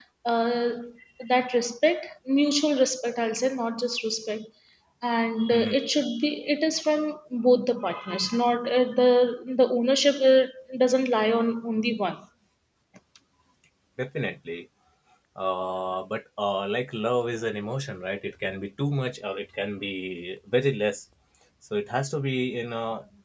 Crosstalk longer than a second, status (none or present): none